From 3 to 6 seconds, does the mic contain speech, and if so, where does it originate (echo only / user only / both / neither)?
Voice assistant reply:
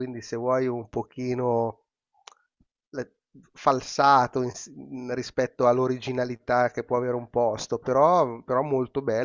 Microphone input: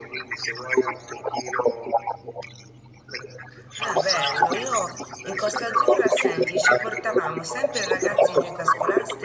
both